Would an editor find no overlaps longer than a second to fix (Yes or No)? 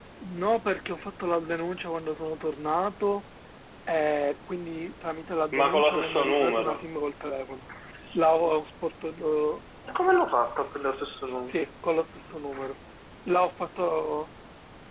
No